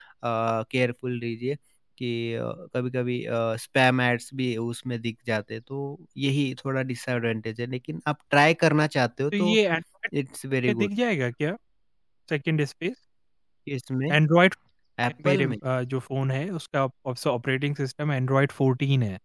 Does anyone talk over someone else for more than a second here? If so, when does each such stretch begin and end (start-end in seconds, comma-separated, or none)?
none